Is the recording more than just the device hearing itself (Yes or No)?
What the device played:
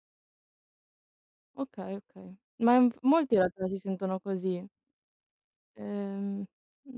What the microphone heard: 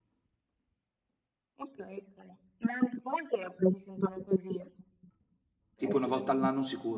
Yes